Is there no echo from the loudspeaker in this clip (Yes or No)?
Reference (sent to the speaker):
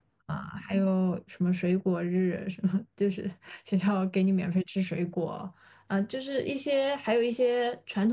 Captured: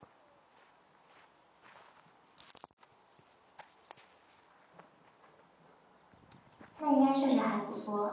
Yes